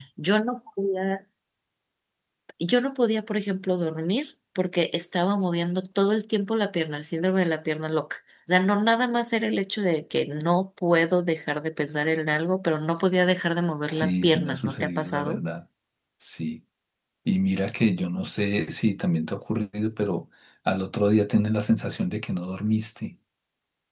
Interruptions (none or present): present